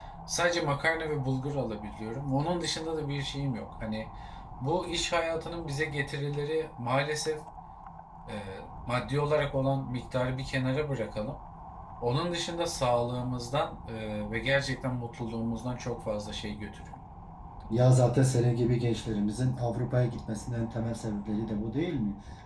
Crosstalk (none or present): none